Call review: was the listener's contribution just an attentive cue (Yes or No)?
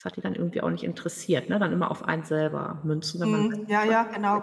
No